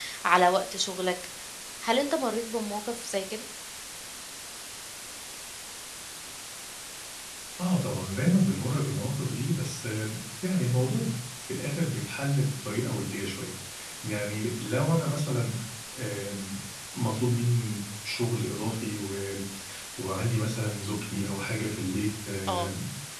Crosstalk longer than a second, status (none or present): none